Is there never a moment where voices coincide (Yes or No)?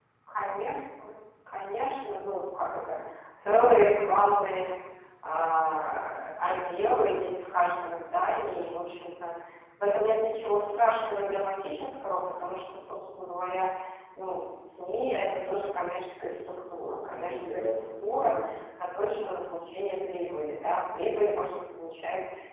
No